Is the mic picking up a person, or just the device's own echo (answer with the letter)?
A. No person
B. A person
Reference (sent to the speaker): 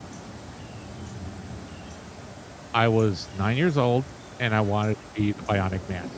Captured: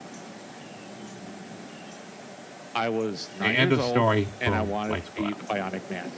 B